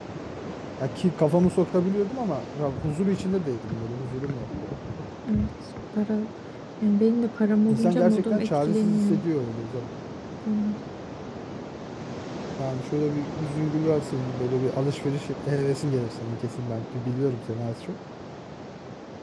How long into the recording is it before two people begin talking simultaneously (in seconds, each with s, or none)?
7.7 s